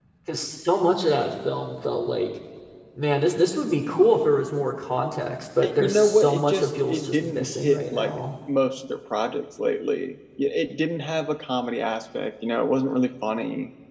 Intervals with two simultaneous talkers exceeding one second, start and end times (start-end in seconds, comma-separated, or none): 5.6-8.1